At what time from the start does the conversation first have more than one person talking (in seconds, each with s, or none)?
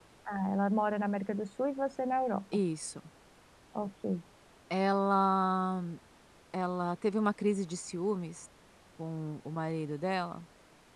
none